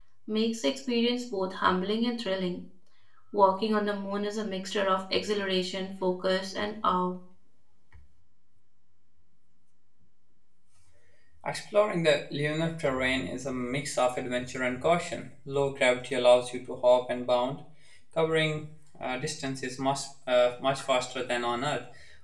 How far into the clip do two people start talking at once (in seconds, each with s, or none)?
none